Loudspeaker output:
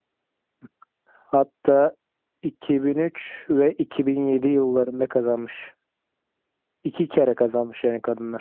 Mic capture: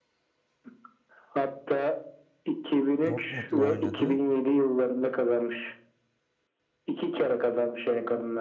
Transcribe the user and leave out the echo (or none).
Dortmund'la oynadı.